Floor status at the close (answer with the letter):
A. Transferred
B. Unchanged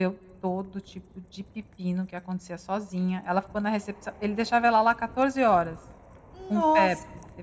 B